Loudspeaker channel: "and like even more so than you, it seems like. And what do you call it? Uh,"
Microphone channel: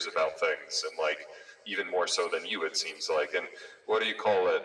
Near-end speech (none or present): none